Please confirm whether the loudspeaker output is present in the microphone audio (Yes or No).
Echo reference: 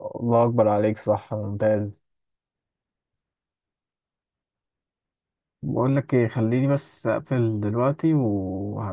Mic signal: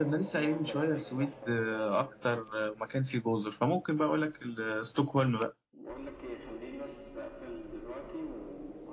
Yes